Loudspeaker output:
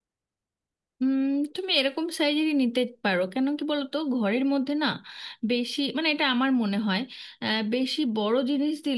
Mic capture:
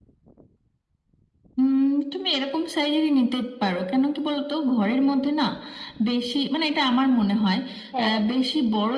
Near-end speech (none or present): present